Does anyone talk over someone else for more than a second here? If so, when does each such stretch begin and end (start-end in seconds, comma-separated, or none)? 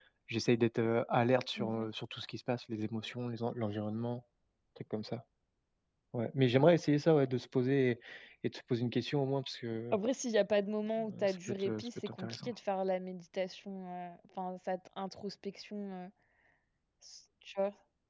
11.0-12.5